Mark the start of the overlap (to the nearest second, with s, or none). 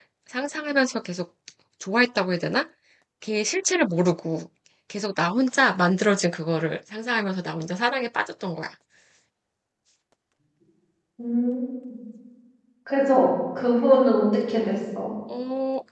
none